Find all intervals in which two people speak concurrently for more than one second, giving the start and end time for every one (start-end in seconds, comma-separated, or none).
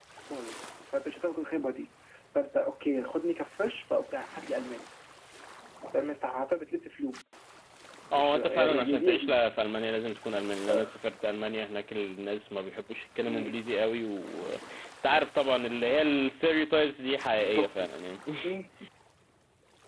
8.1-9.4